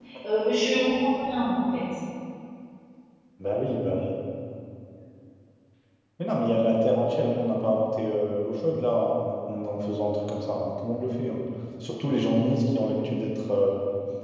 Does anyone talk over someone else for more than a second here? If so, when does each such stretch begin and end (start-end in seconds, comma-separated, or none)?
none